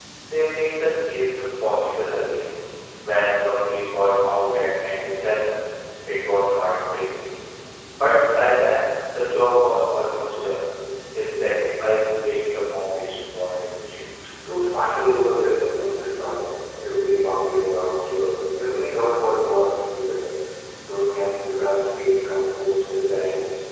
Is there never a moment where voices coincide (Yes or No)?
Yes